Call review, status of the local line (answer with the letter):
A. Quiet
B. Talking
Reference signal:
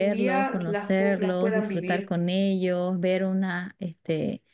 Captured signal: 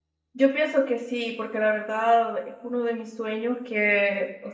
B